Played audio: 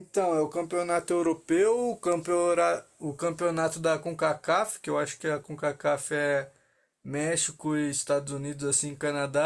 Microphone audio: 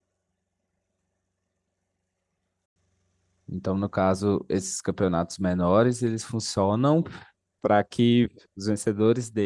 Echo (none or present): none